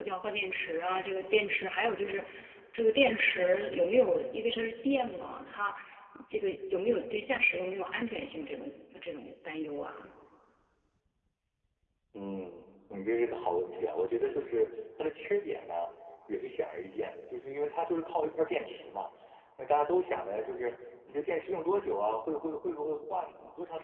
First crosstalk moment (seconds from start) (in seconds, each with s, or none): none